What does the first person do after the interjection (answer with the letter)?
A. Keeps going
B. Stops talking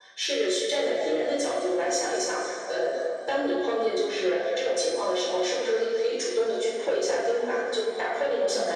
B